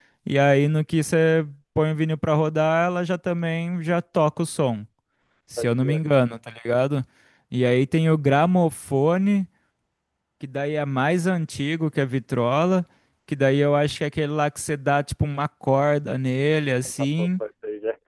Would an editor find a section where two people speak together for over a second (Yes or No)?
No